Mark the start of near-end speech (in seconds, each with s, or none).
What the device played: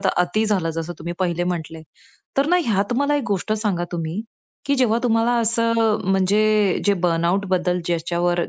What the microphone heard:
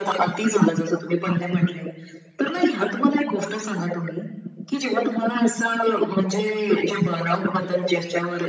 none